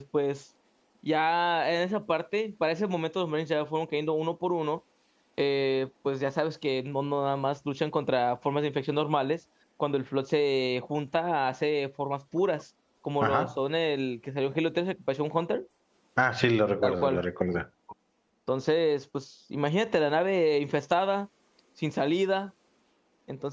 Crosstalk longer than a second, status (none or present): none